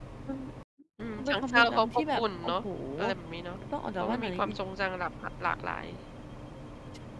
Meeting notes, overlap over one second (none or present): present